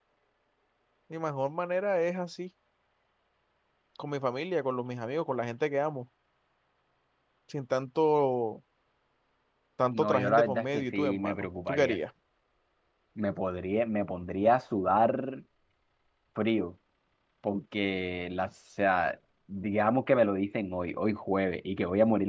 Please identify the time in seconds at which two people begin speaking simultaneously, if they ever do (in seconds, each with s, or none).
9.9 s